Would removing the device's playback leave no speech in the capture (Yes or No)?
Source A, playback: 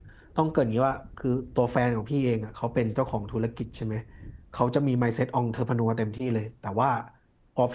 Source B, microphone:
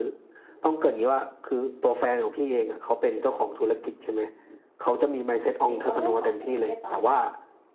No